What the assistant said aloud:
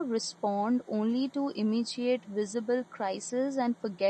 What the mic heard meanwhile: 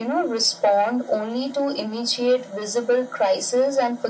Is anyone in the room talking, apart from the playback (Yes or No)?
No